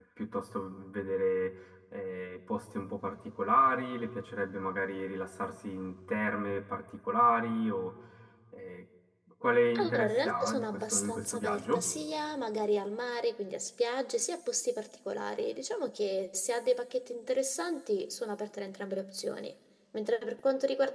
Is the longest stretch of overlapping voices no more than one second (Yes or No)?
No